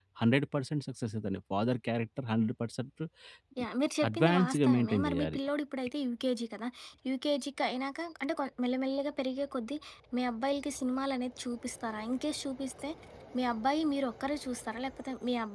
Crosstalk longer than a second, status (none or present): present